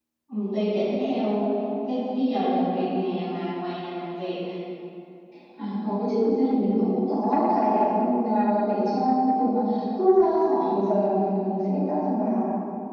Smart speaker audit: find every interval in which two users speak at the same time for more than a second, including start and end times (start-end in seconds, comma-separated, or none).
none